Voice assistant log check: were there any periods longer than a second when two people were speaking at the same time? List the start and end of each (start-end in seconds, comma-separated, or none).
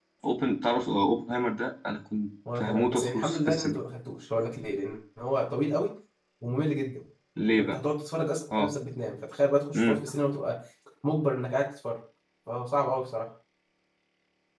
2.5-3.8